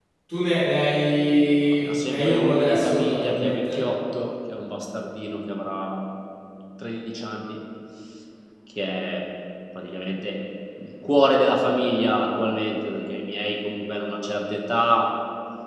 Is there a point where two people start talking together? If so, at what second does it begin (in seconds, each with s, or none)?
1.6 s